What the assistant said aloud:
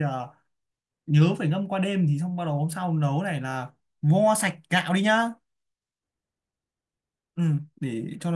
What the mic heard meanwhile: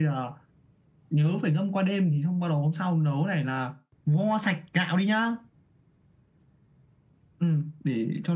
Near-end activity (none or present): none